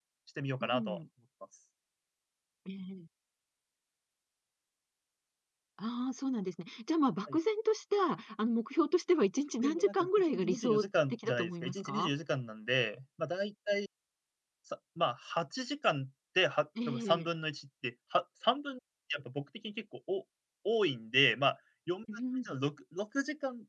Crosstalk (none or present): present